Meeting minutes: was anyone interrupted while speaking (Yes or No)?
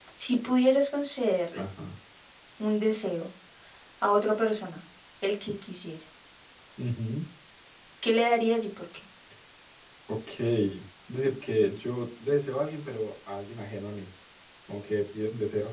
No